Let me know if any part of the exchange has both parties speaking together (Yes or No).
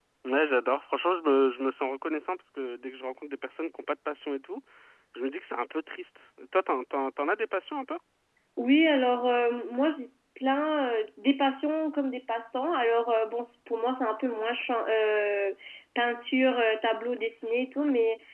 No